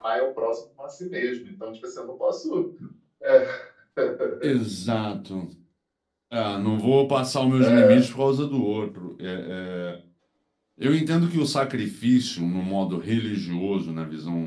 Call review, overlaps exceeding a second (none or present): none